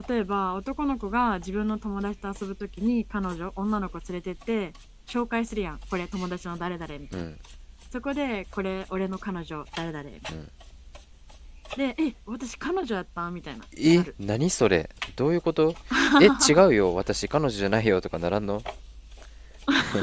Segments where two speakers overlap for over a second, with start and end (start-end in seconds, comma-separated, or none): none